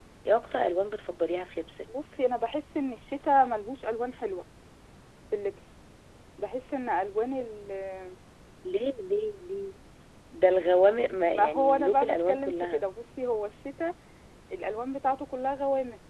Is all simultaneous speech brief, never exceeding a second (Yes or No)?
No